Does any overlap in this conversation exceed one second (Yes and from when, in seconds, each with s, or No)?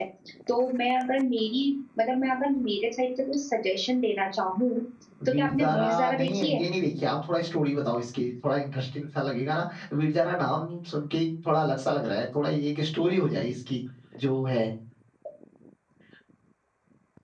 Yes, from 5.3 s